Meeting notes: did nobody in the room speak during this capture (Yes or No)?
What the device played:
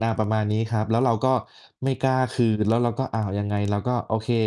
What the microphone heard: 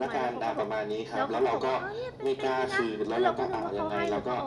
No